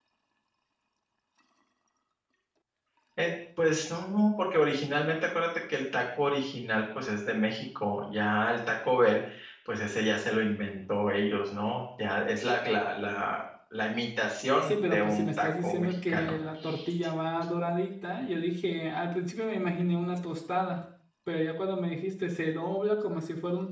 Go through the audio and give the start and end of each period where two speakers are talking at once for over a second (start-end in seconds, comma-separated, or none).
14.6-16.3